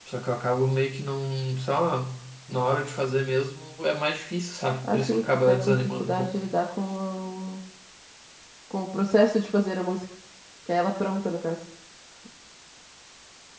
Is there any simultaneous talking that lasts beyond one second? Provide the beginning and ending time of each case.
4.8-6.4

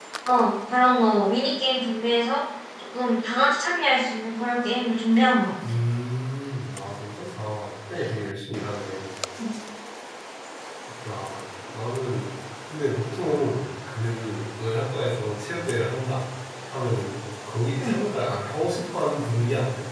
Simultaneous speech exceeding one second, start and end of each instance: none

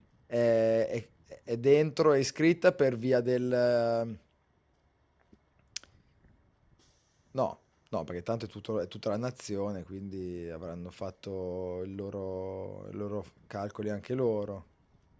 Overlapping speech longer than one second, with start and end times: none

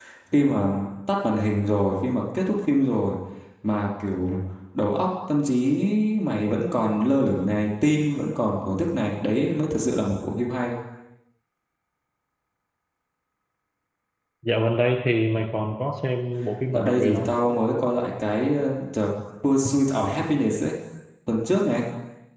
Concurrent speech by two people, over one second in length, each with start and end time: none

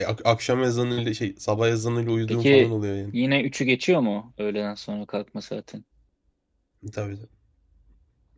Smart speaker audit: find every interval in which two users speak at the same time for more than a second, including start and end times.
none

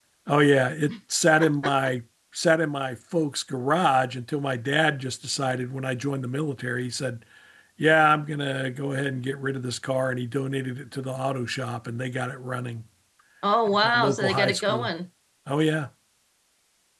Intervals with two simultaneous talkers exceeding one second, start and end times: 13.7-14.9

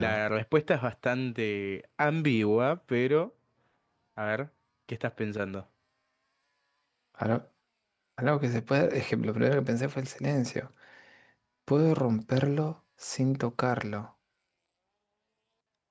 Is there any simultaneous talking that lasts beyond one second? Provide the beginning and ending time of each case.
none

